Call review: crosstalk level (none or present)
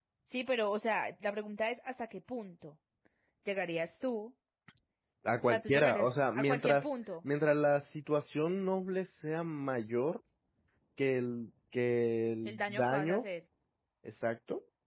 present